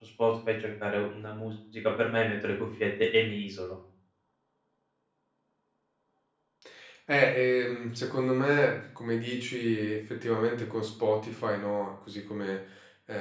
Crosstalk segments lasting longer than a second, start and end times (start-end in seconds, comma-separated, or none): none